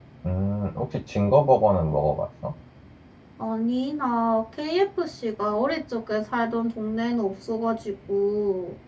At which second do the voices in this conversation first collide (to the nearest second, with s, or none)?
none